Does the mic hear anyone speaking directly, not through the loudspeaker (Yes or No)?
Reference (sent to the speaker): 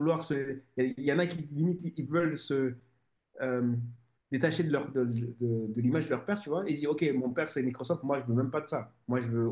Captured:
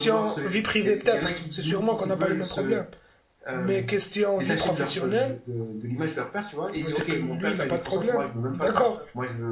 Yes